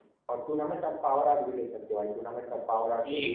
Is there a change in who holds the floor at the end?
Yes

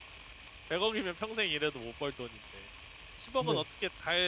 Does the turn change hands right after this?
No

